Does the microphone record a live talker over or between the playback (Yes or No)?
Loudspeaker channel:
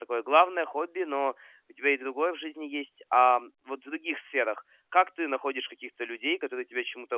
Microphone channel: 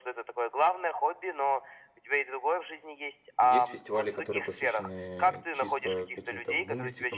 Yes